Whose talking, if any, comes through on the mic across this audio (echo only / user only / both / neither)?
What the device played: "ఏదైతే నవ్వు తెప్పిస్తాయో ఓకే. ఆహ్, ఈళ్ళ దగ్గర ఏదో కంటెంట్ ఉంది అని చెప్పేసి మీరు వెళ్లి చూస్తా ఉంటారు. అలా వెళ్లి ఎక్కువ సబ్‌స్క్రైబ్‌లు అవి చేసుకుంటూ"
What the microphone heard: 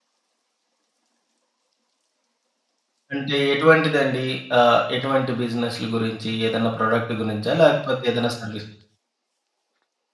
user only